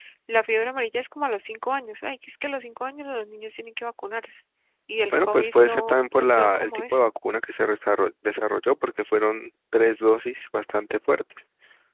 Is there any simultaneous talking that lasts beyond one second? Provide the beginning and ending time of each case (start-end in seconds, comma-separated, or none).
5.1-7.1